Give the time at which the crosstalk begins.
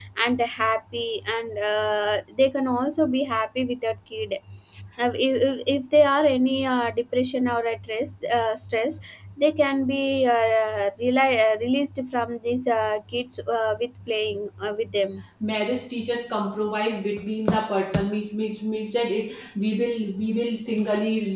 none

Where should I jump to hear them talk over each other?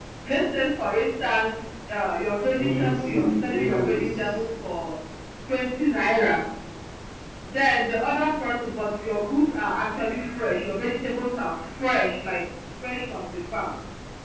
3 s

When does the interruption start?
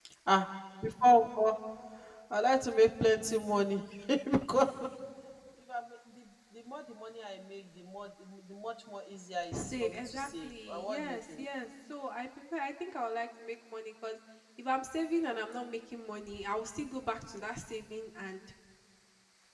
10 s

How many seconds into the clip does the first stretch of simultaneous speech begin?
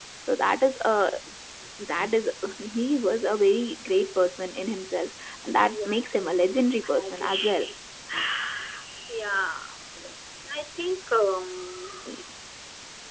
6 s

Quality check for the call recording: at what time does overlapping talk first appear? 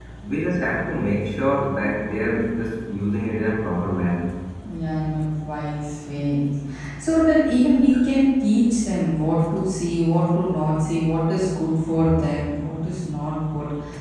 none

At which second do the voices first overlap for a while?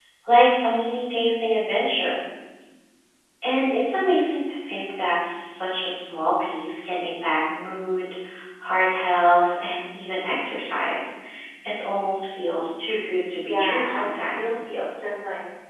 13 s

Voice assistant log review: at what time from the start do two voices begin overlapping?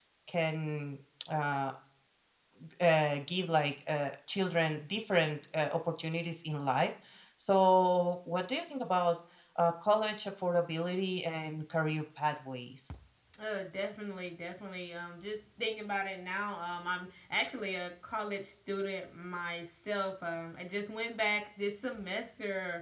none

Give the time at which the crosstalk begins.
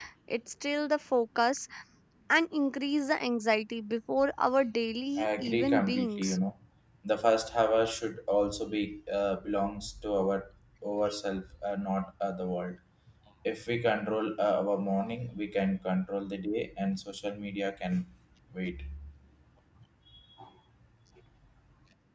5 s

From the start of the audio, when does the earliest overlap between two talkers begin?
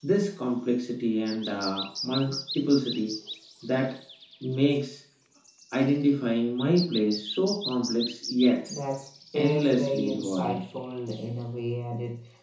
9 s

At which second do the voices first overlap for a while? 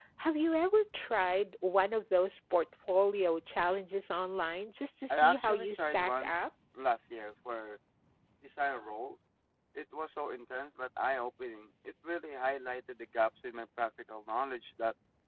5 s

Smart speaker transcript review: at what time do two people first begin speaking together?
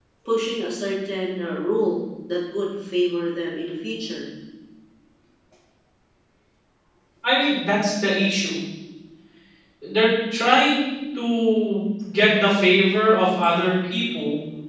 none

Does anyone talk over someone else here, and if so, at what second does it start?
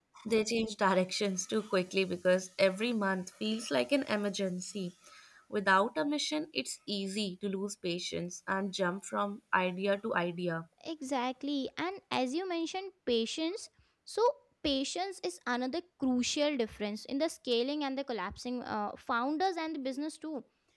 none

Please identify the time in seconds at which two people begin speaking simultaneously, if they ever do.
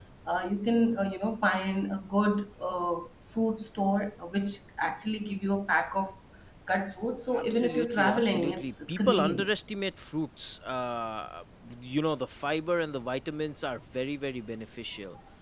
7 s

